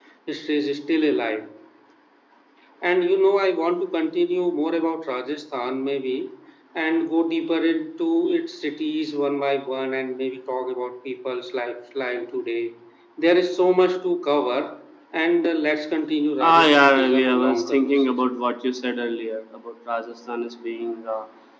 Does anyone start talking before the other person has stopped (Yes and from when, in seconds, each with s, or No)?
Yes, from 16.4 s